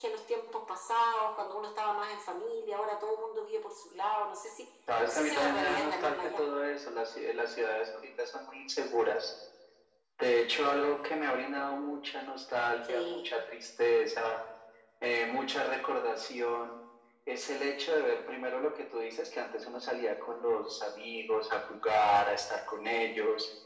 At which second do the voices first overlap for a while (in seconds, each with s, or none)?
5.0 s